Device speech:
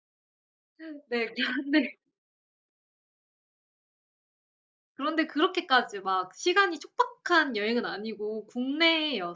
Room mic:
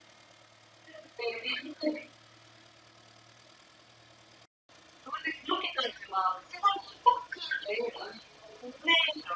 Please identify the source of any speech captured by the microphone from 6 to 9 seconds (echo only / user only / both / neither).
echo only